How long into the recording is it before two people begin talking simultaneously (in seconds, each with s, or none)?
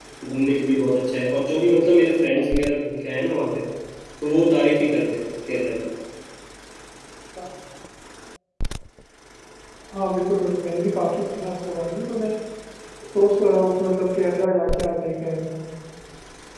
none